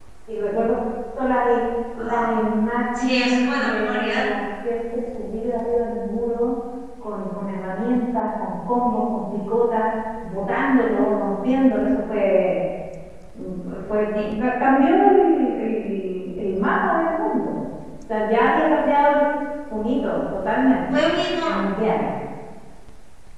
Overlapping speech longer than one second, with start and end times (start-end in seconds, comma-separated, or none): 3.0-4.2